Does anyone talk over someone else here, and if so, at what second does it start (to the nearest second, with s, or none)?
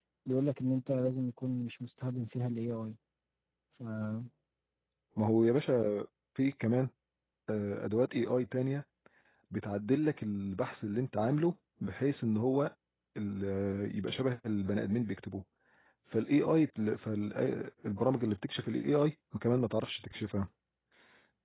none